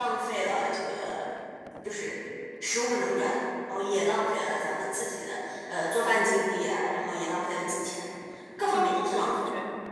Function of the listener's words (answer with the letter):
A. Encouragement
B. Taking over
B